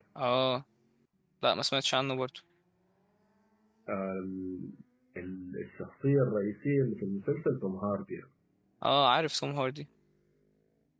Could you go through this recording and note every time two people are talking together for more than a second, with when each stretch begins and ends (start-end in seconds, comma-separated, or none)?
none